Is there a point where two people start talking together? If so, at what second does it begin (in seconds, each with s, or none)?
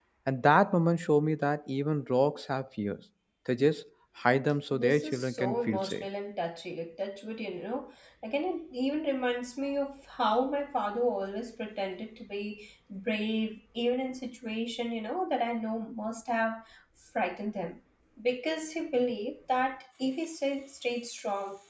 4.7 s